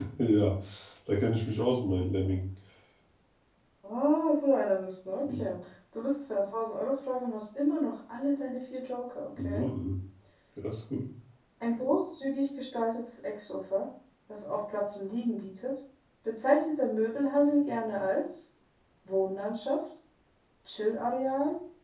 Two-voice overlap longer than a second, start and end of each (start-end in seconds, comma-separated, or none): none